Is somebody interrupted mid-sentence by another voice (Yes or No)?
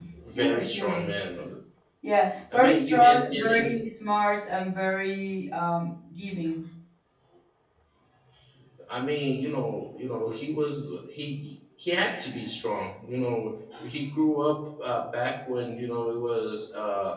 Yes